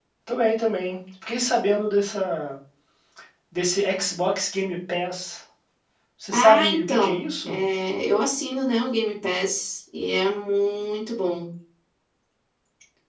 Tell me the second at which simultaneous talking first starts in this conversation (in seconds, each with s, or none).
6.3 s